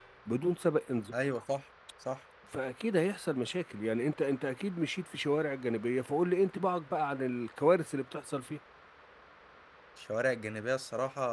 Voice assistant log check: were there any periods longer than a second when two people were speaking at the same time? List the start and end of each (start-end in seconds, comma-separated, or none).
none